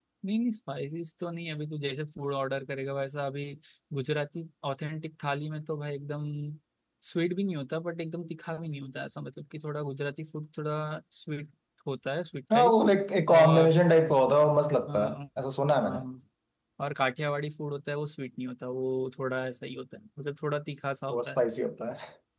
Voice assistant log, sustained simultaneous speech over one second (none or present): none